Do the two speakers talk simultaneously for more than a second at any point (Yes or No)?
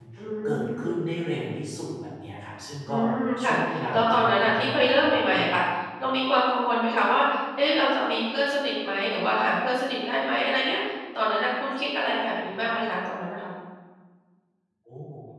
Yes